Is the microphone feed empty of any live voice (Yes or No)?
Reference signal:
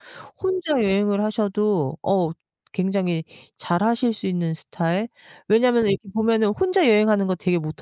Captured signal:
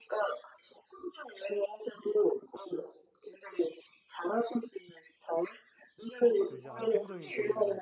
No